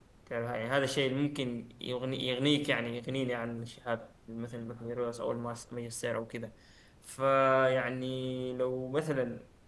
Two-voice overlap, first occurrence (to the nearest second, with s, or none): none